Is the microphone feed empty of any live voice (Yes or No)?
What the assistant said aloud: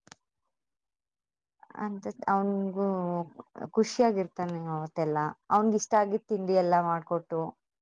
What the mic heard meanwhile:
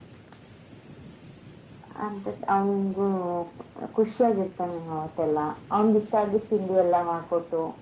Yes